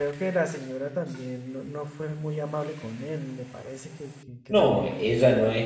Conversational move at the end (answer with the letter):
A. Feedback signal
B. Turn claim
B